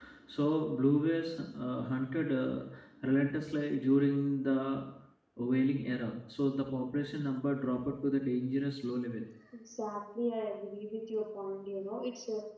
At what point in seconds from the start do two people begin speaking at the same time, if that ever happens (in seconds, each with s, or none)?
none